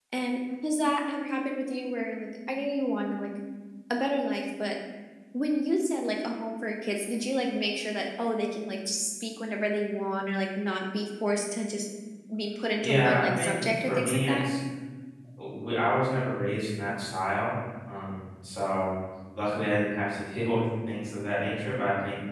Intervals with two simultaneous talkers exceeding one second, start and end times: 12.8-14.3

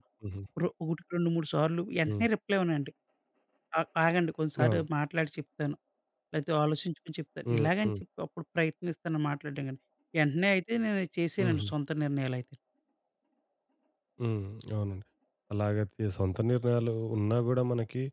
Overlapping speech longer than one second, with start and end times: none

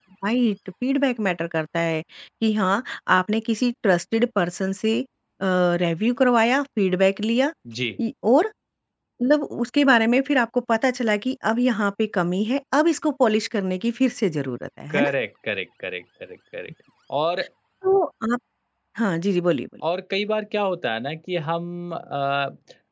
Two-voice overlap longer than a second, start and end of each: none

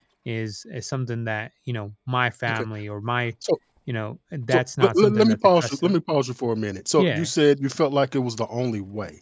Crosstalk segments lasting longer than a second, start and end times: 4.5-6.0

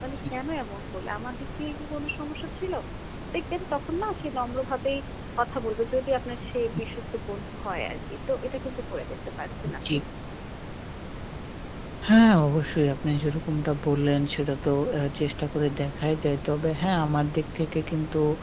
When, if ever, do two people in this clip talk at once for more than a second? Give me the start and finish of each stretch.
none

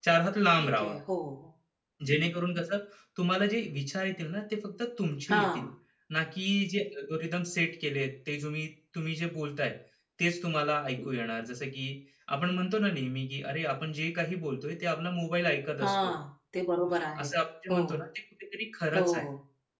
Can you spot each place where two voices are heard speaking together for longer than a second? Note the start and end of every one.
none

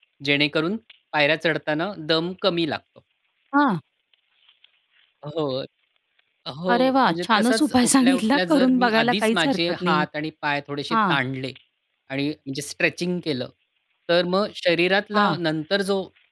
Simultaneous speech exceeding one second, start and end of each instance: 6.7-10.1

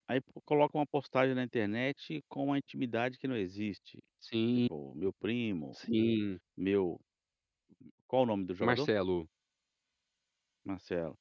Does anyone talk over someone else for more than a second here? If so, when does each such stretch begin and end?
none

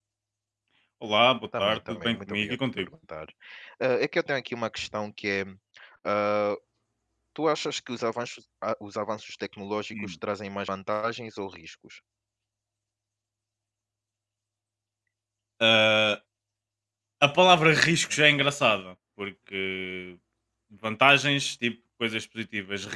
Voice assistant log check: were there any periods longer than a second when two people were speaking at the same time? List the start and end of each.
1.6-2.9

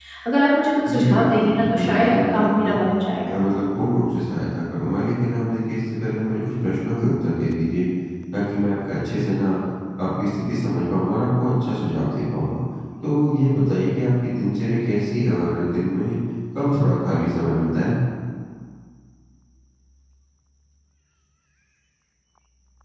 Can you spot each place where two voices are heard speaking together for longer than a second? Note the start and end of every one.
0.9-2.7

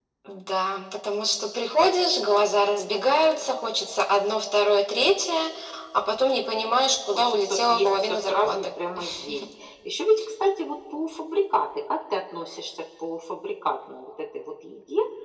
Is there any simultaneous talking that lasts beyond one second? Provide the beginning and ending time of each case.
7.2-8.7

